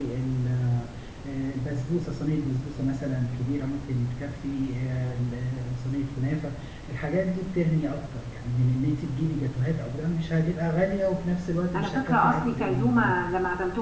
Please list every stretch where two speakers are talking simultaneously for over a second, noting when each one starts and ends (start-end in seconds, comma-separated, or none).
11.8-13.2